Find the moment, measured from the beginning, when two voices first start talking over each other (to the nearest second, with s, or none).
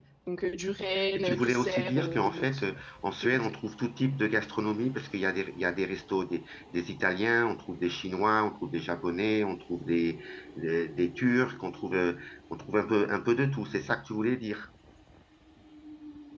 1 s